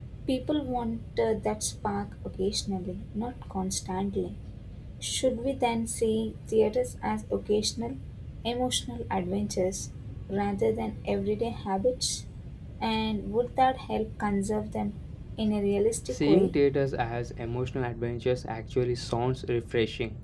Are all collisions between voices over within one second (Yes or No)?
Yes